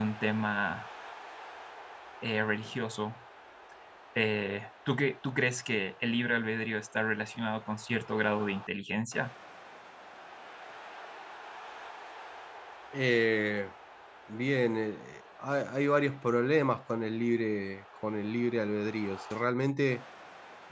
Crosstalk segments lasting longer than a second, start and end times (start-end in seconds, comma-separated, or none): none